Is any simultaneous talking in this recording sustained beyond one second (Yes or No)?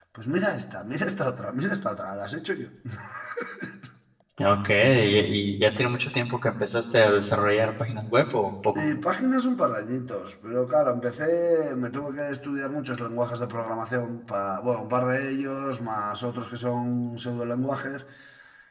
No